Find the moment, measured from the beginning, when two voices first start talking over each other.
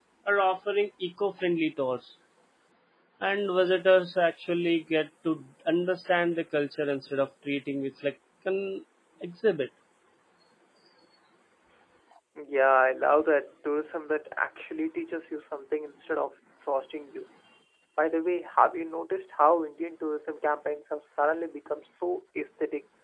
none

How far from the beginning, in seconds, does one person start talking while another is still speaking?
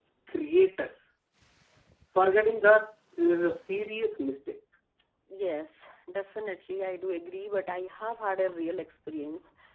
none

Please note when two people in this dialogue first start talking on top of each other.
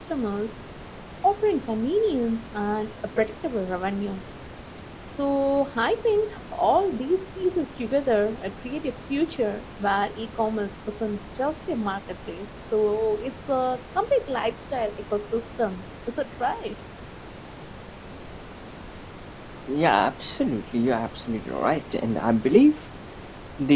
none

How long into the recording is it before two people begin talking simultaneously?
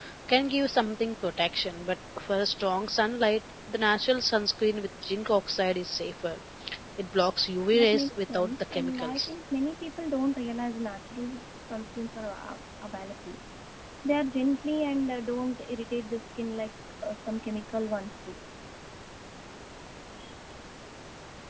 7.7 s

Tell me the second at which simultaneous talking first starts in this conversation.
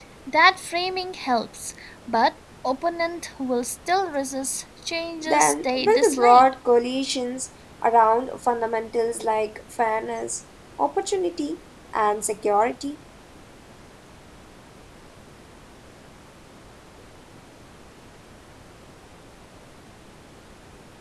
5.2 s

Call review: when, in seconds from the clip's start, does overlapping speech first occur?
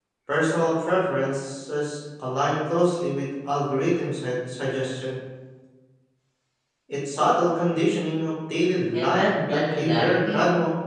8.9 s

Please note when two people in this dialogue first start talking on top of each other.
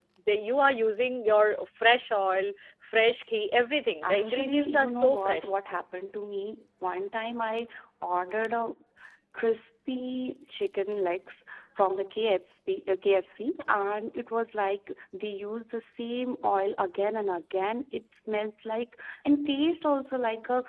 4.0 s

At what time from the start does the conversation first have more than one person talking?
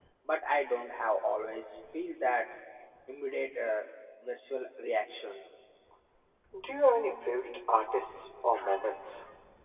none

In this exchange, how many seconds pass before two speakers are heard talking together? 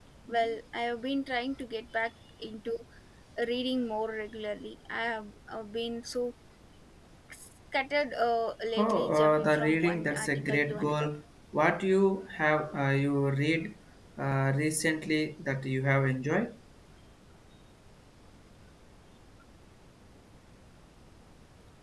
8.8 s

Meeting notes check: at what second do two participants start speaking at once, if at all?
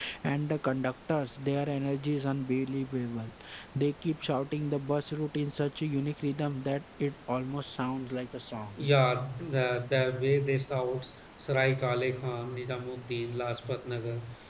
none

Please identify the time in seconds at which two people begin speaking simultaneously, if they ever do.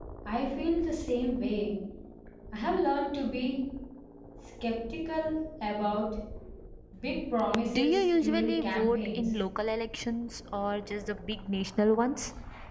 7.7 s

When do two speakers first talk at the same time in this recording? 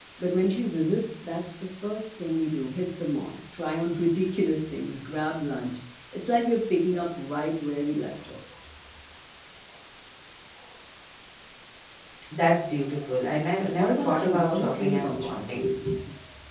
13.7 s

